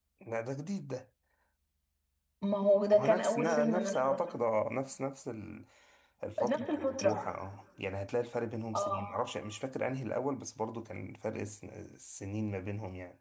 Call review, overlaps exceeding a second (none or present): present